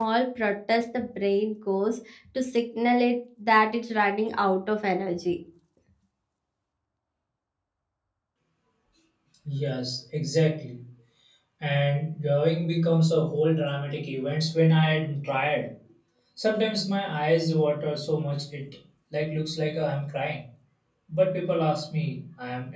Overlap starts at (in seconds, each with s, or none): none